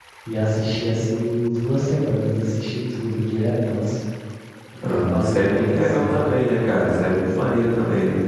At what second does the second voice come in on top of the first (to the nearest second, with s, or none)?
5 s